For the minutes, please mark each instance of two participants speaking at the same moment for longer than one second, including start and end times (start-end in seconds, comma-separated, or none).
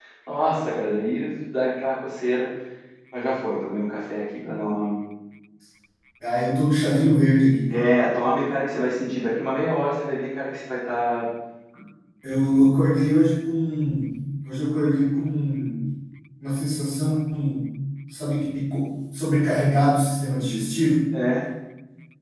none